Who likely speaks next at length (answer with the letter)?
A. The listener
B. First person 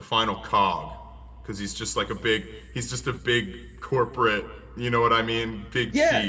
A